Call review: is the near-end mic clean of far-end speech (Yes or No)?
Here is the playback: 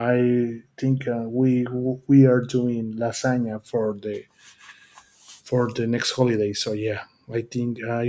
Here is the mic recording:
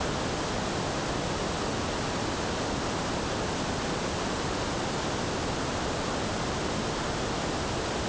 Yes